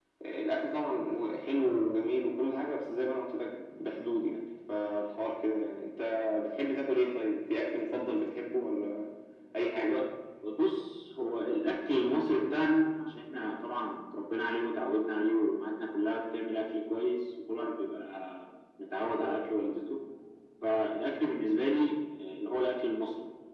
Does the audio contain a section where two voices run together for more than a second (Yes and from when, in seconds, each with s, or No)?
No